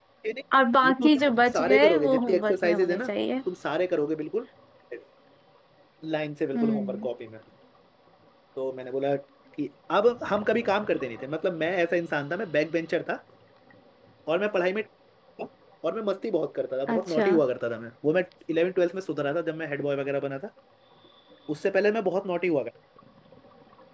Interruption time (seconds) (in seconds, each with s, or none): 0.9 s